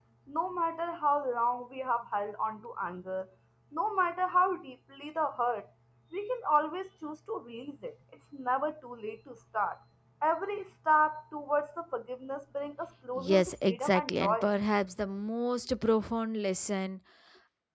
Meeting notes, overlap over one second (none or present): present